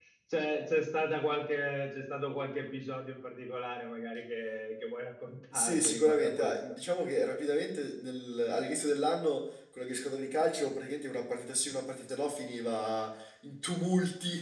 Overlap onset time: 5.5 s

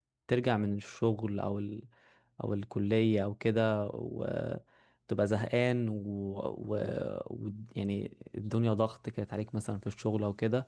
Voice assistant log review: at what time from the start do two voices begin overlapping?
none

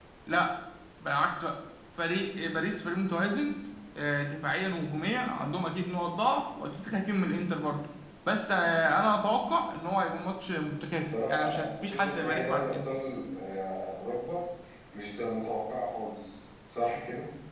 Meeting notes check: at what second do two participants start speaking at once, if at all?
11.0 s

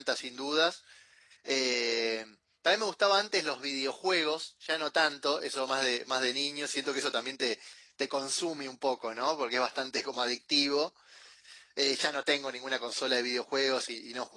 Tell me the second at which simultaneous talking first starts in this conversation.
none

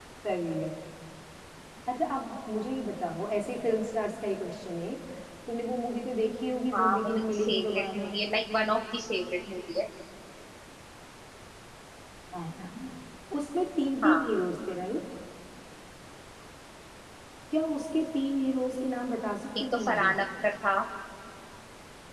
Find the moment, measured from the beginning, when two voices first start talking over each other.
6.7 s

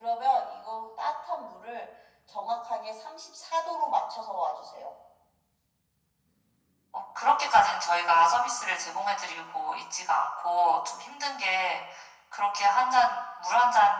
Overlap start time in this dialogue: none

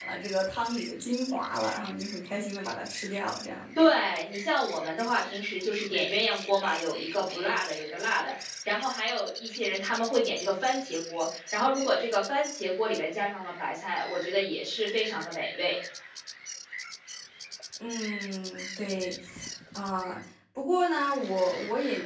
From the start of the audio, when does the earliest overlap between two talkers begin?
none

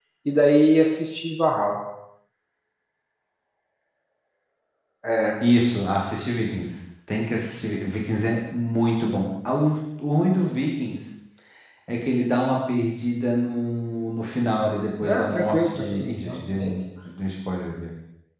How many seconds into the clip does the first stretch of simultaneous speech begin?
15.0 s

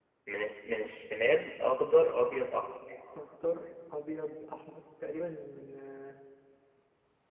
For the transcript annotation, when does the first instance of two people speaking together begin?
none

